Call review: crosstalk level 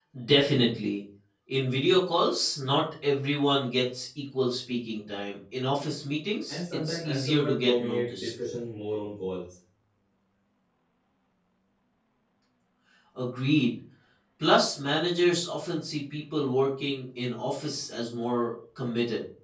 present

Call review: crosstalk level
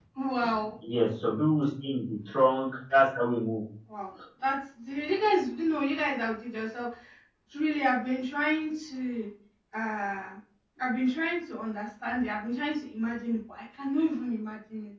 none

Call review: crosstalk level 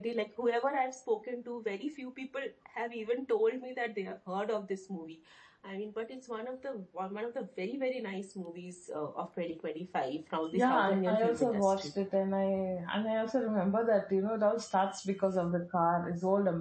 present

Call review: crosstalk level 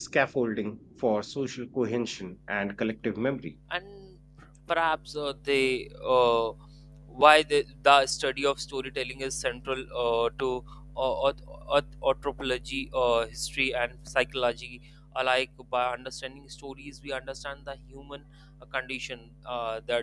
none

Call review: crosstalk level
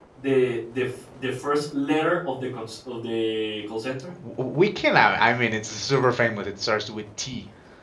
none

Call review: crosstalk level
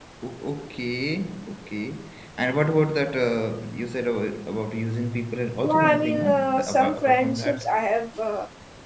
present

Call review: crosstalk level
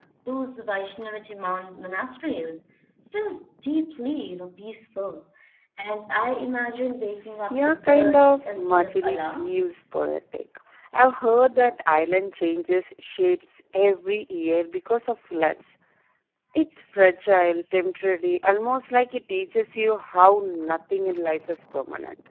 present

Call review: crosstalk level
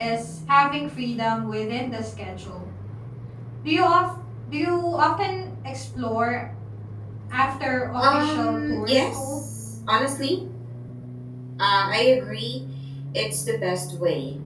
present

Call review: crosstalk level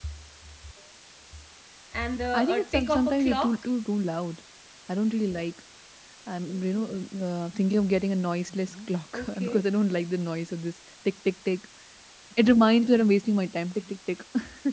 present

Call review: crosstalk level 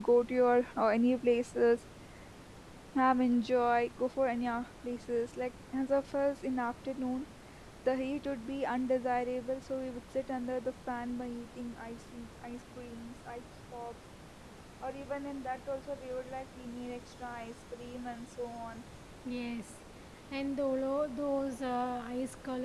none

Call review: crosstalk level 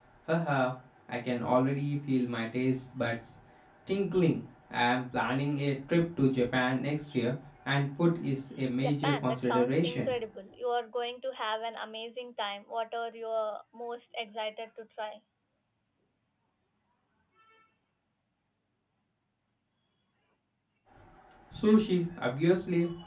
present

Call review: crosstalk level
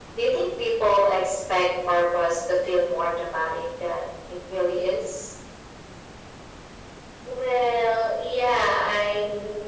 none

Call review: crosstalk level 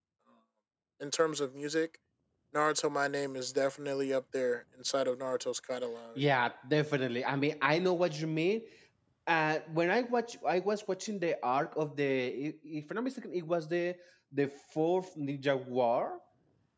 none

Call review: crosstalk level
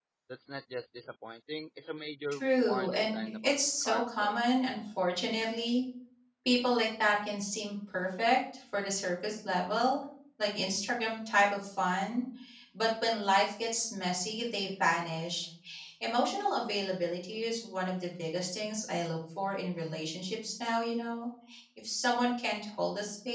present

